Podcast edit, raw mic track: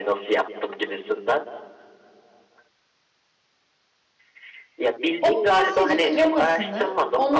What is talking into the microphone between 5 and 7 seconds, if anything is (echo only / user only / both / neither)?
both